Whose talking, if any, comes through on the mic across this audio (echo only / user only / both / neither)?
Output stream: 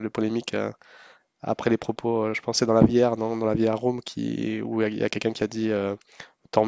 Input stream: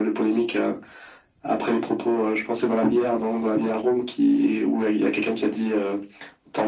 echo only